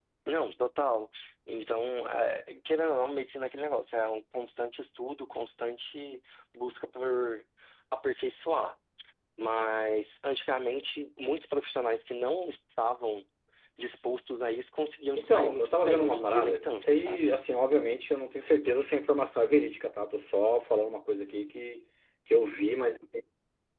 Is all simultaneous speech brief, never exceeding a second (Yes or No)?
No